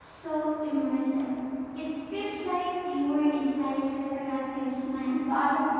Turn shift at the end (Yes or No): Yes